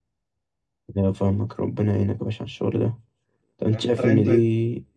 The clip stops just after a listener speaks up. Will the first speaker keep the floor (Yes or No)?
Yes